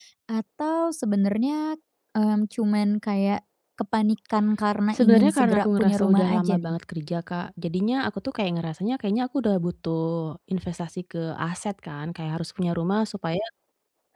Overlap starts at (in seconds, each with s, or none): 4.9 s